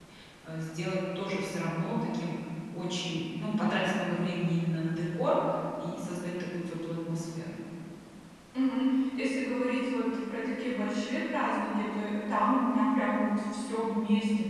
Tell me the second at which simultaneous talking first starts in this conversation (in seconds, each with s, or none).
none